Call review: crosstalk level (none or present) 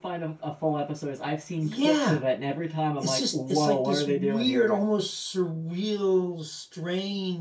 present